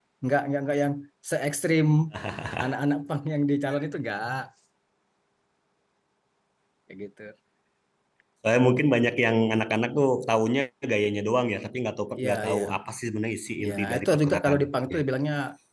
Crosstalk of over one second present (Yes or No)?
Yes